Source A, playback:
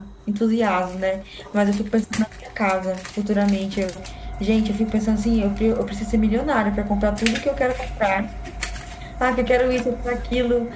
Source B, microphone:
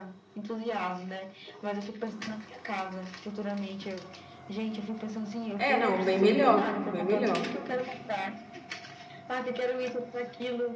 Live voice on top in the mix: Yes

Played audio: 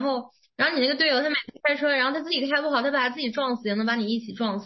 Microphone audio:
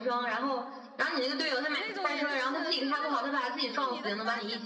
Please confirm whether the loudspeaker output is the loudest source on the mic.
Yes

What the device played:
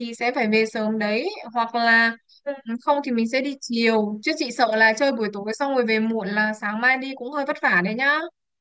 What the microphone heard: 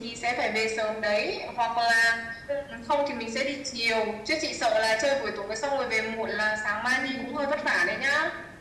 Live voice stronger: No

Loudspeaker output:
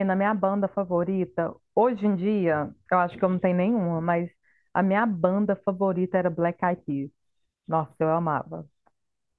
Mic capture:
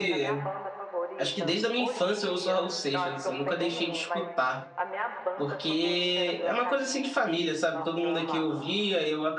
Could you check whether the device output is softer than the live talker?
Yes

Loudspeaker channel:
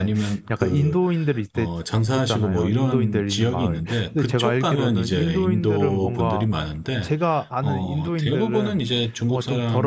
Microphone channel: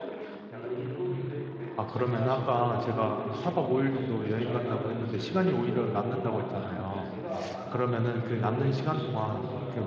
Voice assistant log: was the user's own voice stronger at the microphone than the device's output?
Yes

